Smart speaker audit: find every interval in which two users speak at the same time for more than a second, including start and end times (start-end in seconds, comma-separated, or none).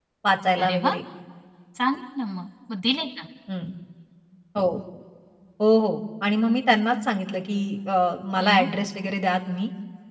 none